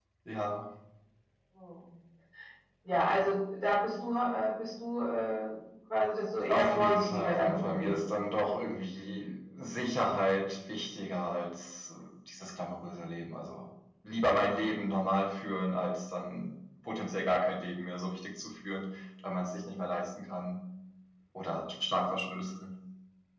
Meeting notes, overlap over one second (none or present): present